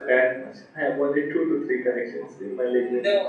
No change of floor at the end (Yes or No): No